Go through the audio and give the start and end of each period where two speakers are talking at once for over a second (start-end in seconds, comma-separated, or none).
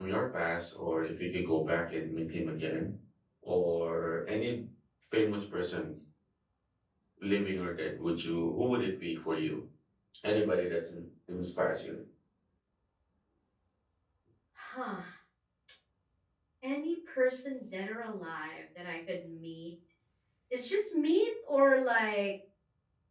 none